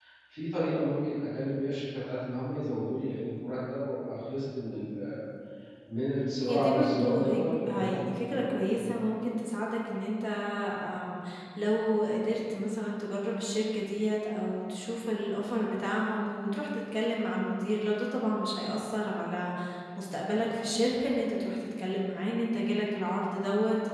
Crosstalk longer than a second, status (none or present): present